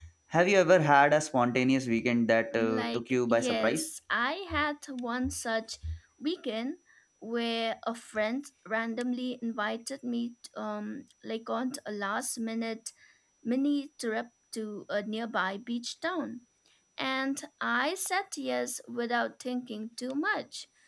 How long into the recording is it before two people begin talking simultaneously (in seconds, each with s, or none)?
2.5 s